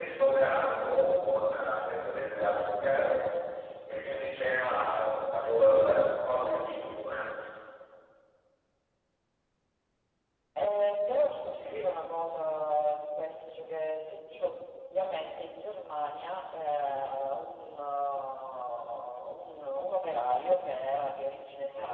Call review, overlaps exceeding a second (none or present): none